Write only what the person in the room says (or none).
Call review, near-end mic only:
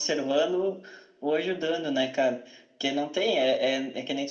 none